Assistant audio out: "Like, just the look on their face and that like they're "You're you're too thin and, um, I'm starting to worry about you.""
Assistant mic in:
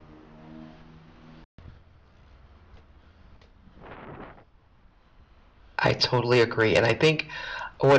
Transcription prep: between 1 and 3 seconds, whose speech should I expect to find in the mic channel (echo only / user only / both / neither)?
neither